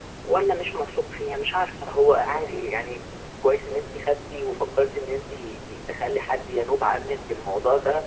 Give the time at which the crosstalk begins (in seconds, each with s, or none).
none